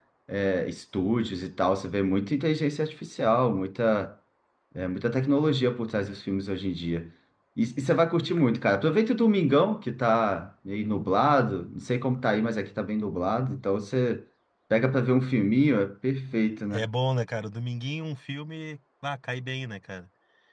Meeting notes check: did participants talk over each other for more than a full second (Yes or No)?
No